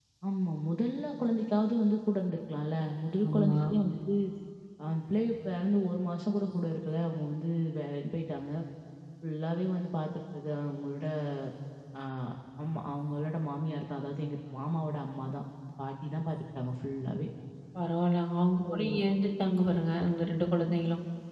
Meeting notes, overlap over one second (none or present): none